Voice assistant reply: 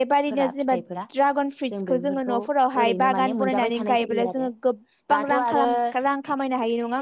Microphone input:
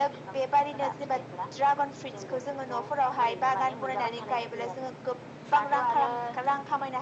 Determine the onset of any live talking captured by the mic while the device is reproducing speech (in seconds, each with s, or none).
none